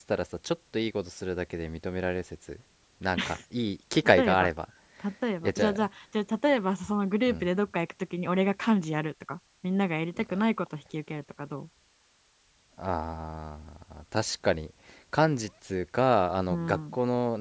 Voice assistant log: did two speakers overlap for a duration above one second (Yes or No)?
No